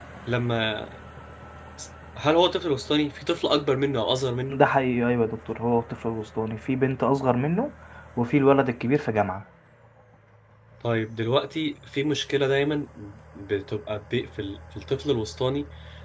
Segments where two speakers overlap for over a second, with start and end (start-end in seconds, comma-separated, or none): none